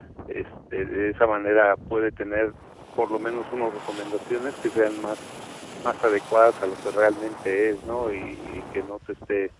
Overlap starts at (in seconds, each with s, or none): none